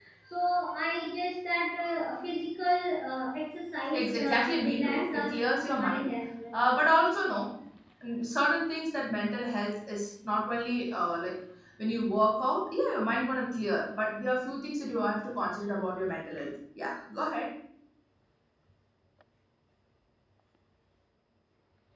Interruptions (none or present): present